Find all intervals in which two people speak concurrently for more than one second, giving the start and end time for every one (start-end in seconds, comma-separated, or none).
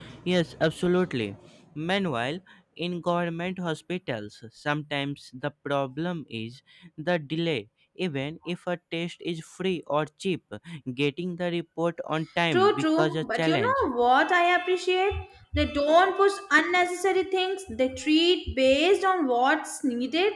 12.5-13.9